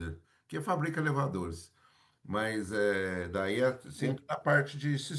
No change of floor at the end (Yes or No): Yes